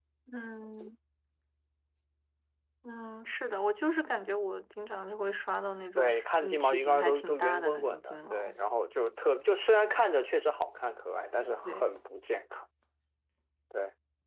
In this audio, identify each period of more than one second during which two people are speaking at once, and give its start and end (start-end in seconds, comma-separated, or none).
6.0-8.5